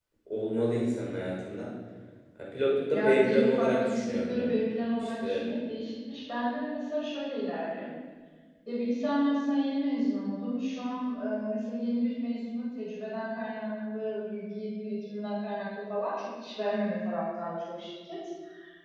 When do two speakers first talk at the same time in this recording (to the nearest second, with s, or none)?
3 s